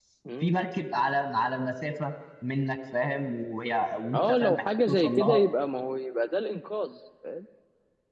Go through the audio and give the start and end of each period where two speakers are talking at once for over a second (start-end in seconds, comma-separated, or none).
4.1-5.4